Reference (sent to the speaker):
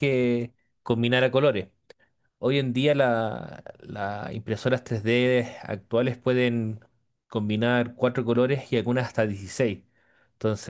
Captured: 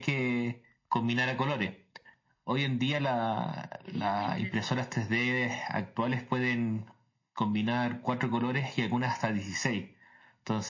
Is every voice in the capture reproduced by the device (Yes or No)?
No